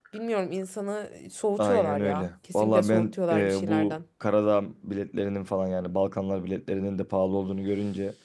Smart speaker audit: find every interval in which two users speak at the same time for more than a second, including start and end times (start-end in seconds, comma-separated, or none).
1.6-4.0